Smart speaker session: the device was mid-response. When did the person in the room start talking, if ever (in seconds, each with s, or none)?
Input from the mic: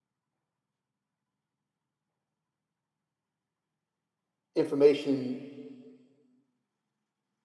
4.6 s